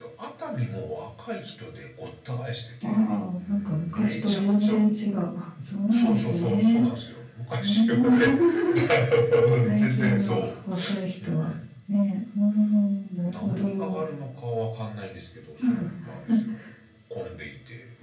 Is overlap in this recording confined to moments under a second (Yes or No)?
No